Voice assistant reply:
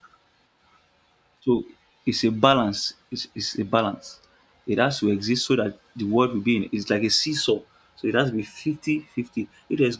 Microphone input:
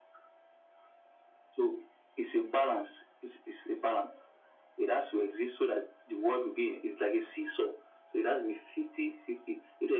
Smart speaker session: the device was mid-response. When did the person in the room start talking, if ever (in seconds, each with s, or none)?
none